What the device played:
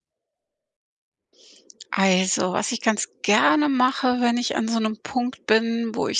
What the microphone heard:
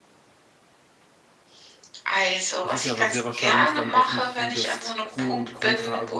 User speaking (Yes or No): Yes